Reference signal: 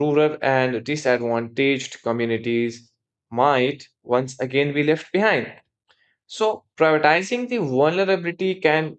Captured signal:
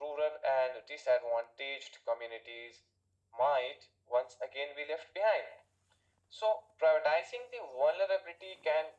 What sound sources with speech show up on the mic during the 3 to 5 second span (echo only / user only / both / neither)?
echo only